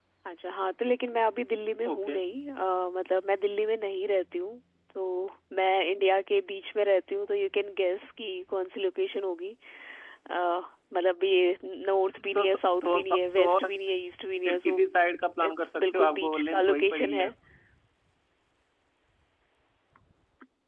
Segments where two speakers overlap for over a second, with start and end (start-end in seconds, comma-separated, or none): 12.3-13.7, 15.4-17.3